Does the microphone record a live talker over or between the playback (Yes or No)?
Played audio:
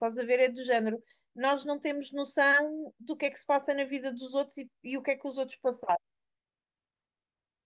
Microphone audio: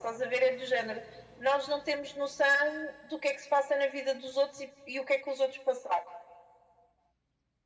No